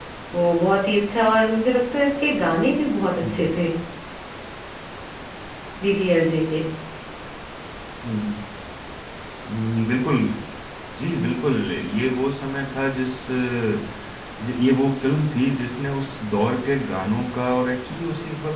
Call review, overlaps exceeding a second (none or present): none